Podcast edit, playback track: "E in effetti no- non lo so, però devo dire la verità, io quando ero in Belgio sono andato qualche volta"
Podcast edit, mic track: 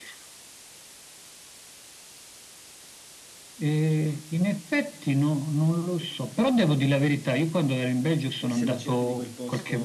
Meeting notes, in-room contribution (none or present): present